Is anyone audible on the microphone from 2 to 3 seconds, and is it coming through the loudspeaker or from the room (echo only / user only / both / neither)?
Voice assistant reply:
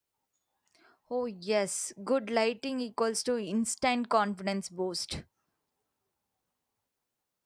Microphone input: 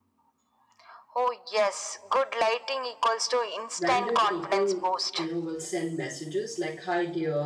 echo only